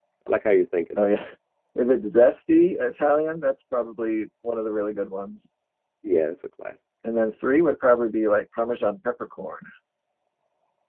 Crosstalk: none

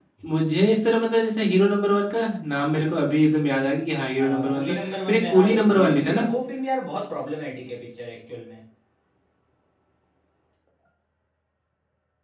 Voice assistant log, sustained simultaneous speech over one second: present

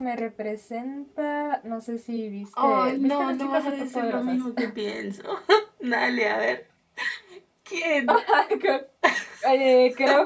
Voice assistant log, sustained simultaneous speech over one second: present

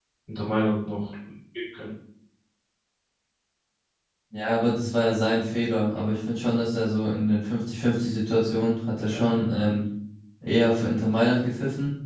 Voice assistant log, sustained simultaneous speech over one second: none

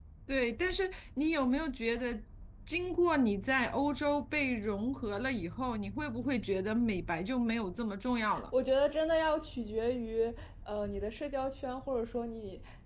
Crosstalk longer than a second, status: none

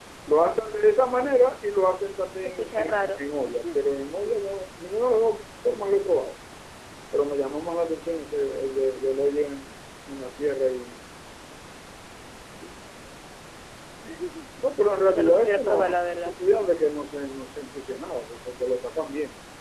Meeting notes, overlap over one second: present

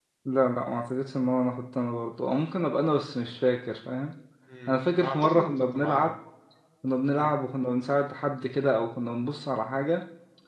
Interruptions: present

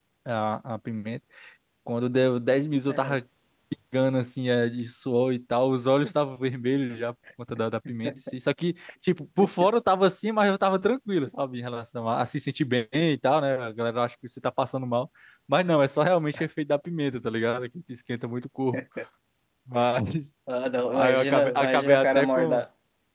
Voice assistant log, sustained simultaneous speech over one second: present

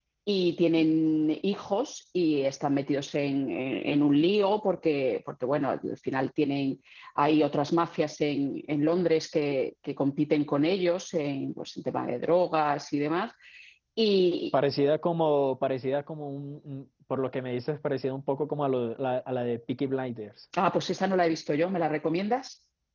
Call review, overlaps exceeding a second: none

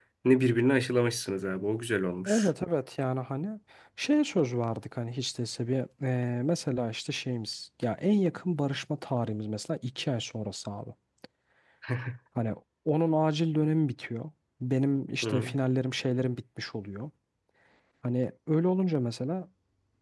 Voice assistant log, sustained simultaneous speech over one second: none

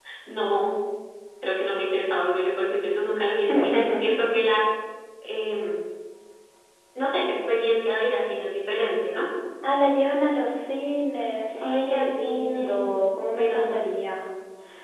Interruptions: present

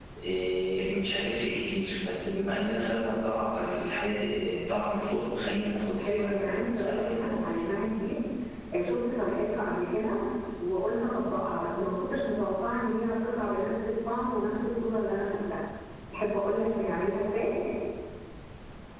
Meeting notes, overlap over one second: present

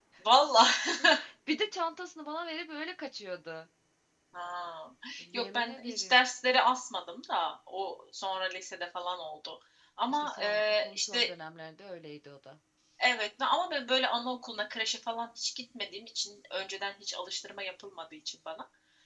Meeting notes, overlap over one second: present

